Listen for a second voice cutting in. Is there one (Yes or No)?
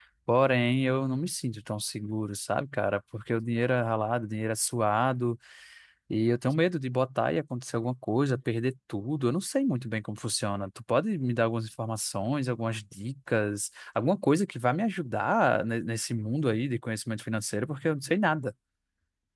No